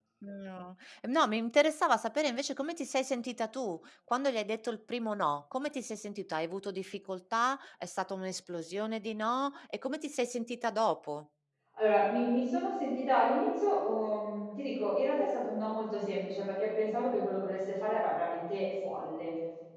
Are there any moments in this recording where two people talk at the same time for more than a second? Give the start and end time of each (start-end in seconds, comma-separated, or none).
none